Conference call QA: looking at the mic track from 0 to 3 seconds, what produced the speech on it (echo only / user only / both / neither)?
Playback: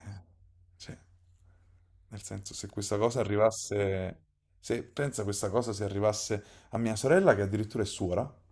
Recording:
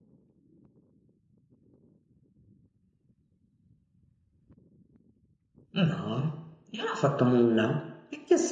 neither